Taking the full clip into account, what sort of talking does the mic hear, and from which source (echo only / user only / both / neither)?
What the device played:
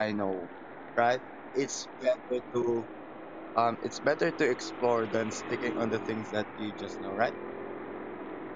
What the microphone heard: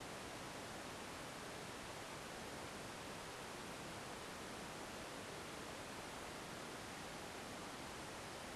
neither